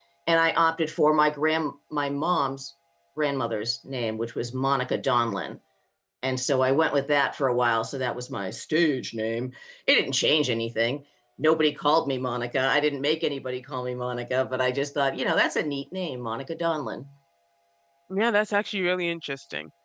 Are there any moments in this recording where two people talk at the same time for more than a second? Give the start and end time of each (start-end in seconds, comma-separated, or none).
none